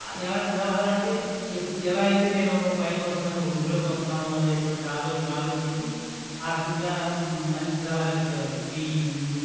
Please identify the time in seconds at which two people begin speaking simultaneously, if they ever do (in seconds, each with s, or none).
none